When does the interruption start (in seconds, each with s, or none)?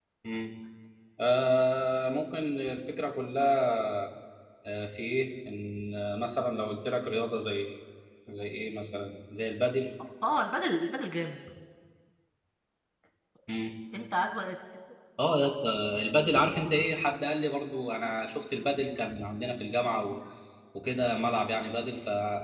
none